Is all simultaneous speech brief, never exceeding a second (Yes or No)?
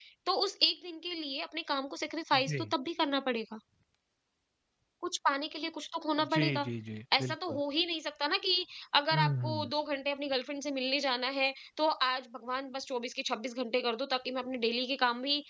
Yes